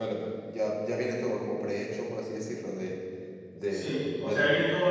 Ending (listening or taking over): taking over